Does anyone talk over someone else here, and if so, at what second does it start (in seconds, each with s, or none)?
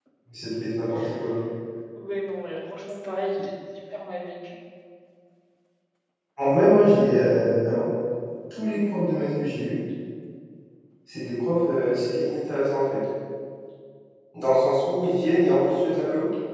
none